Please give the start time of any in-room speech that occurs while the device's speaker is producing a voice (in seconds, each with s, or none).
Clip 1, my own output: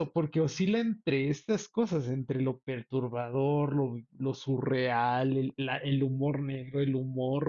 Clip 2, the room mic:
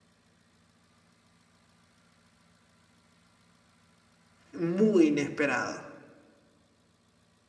4.5 s